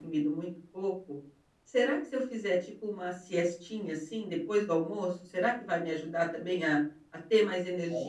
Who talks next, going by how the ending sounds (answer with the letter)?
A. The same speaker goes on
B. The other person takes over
B